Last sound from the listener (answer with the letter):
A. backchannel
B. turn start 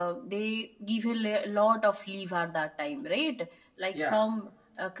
A